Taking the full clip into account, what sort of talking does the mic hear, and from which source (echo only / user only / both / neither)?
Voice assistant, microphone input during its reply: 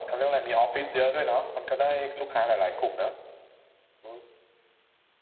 echo only